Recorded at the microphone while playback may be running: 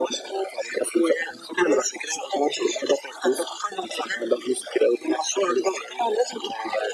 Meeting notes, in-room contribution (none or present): none